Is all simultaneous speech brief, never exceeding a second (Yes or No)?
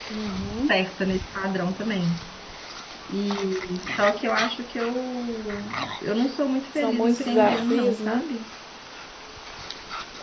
No